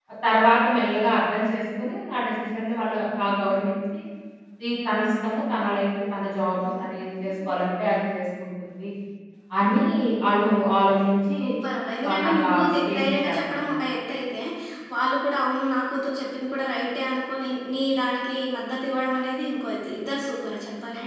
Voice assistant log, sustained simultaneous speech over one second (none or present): present